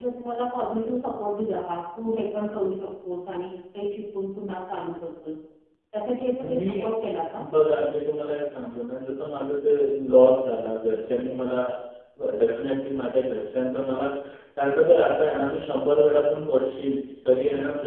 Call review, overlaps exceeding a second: none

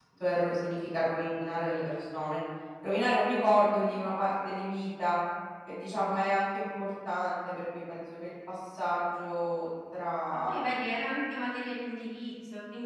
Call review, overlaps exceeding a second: none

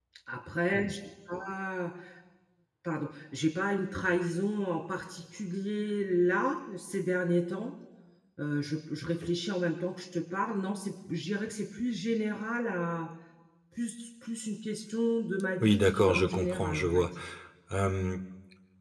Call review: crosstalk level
present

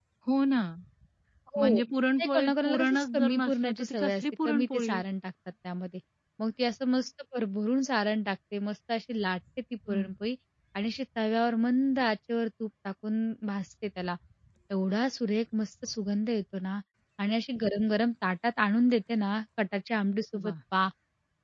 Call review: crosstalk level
present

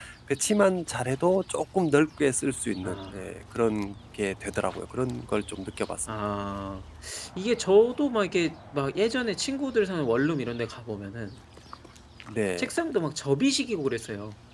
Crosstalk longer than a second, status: none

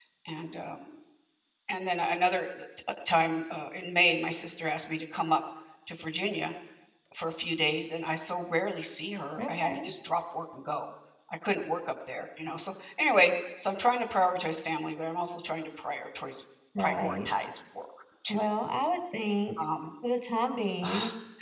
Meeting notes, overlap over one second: none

